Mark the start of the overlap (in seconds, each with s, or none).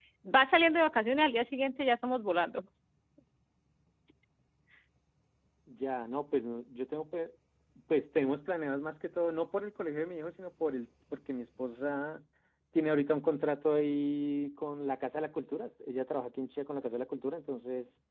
none